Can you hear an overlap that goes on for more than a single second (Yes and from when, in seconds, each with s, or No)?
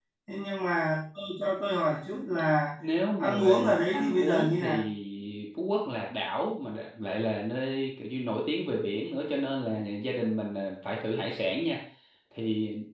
Yes, from 3.2 s